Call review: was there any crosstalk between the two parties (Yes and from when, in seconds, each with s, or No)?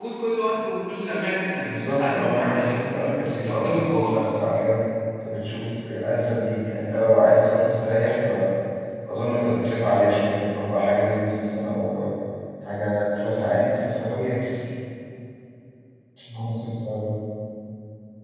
Yes, from 1.5 s